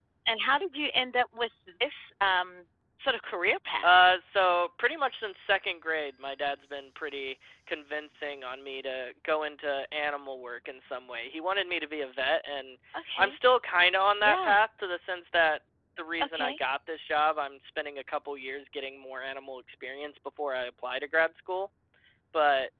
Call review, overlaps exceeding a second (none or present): none